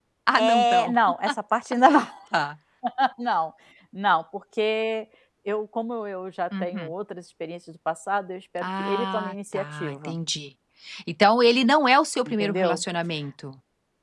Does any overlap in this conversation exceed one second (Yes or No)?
Yes